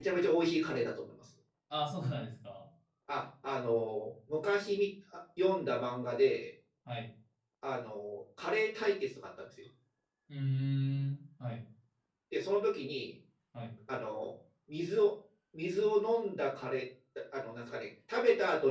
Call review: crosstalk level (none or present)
none